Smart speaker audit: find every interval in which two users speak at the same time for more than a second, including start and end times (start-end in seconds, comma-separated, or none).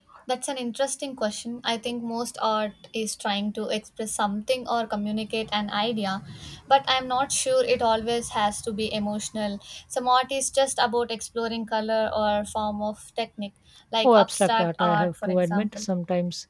14.1-15.8